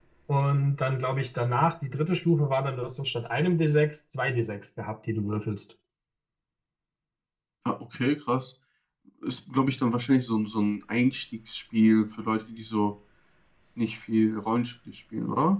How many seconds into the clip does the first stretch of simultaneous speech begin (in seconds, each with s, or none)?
none